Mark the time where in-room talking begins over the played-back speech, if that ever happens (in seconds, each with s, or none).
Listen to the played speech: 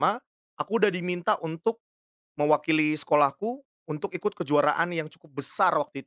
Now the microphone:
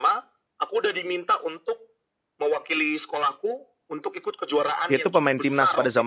4.8 s